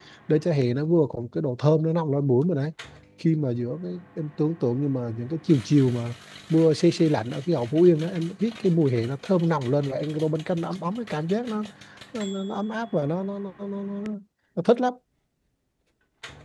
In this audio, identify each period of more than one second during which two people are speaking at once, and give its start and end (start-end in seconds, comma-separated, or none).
none